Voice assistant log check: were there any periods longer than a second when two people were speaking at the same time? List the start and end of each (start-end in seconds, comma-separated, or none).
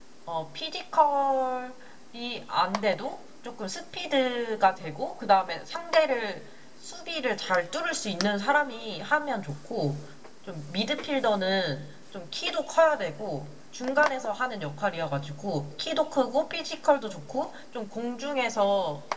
none